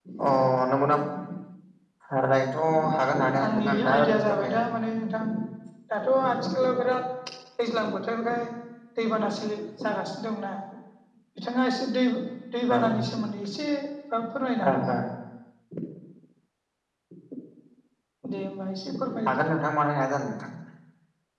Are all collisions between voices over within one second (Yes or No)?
No